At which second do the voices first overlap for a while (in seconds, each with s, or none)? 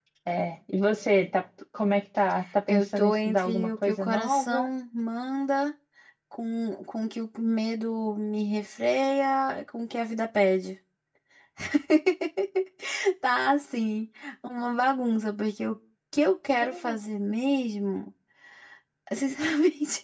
2.7 s